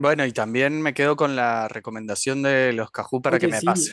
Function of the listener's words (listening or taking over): taking over